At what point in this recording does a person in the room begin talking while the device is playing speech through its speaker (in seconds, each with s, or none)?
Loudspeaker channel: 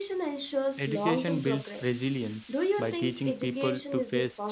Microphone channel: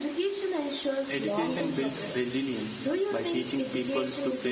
none